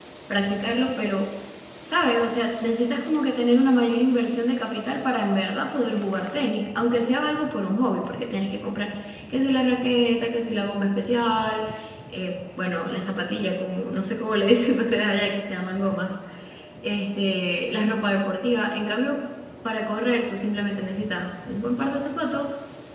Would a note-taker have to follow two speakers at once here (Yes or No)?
No